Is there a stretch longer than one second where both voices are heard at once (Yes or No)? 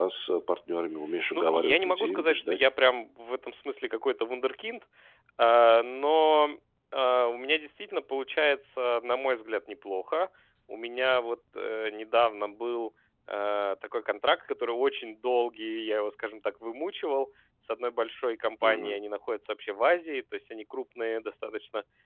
Yes